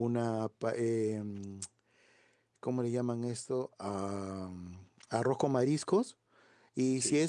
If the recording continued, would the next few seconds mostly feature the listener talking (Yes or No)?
No